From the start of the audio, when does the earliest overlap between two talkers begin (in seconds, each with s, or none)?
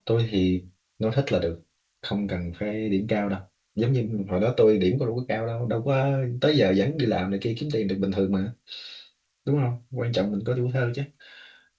none